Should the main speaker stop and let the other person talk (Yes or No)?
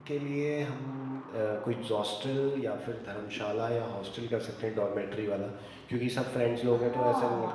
Yes